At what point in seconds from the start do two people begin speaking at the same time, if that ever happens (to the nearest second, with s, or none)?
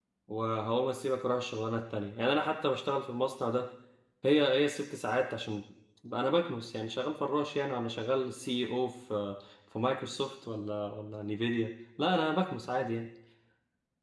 none